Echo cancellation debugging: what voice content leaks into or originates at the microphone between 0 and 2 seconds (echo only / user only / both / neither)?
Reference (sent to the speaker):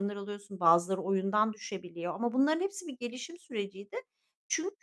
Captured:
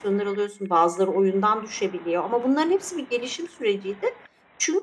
echo only